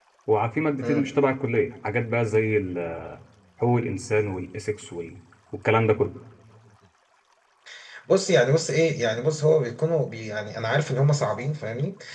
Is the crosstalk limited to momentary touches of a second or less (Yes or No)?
Yes